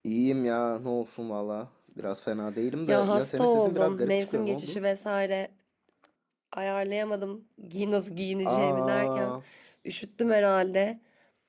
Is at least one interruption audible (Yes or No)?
Yes